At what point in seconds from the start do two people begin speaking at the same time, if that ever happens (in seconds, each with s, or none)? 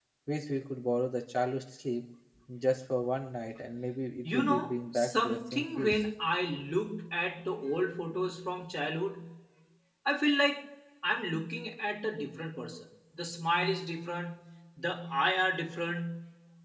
4.2 s